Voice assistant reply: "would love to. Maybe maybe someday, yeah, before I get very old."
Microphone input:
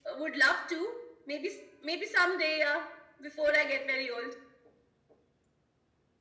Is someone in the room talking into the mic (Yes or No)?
No